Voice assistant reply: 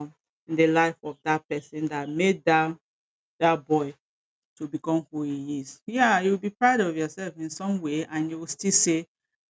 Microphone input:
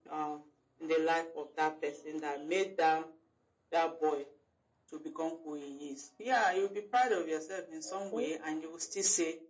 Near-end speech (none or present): present